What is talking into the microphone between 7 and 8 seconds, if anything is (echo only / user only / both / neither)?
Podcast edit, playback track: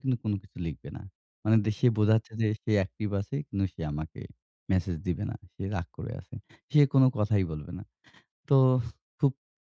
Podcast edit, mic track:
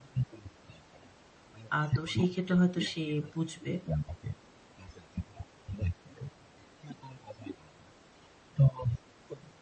echo only